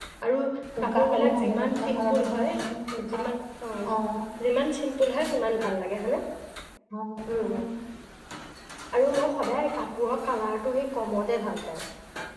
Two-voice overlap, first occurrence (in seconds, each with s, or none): 0.8 s